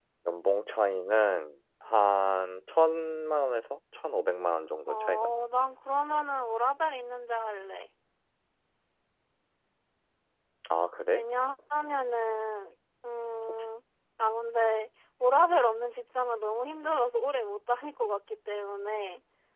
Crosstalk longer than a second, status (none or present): none